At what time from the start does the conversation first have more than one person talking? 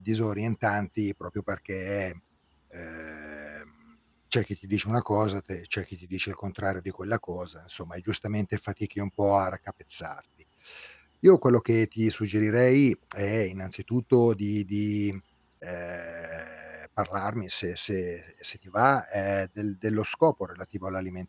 none

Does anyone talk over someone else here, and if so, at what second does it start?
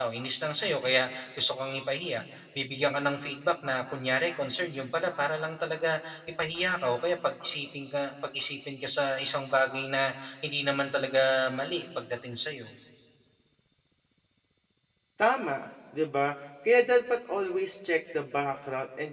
none

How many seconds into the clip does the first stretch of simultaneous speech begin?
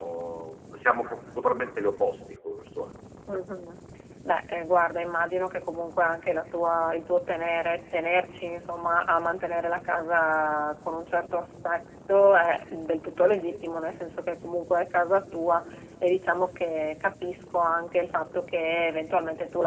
none

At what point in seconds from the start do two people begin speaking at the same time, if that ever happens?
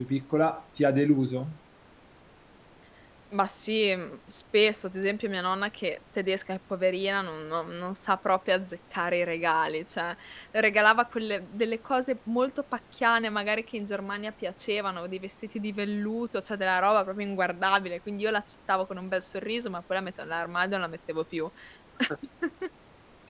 none

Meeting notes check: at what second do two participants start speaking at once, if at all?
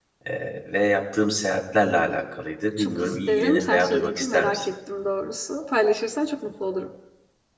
2.8 s

